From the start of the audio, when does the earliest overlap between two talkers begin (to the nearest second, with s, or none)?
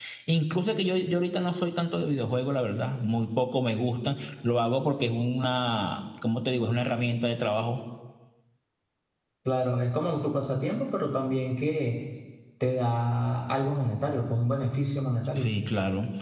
none